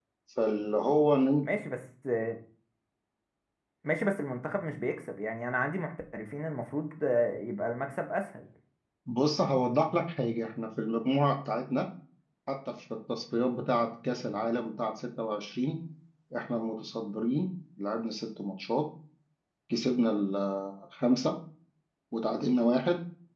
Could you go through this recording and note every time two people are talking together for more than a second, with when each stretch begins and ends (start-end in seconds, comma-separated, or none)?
none